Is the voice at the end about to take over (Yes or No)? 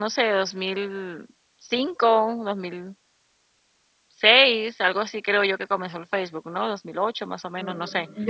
Yes